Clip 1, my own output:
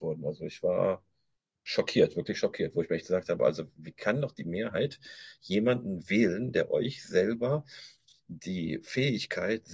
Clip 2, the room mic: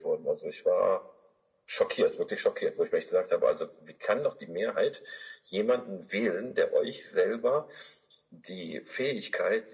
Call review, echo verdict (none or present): present